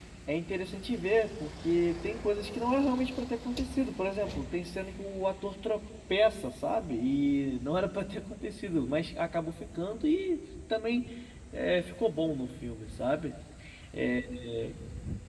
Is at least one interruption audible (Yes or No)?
No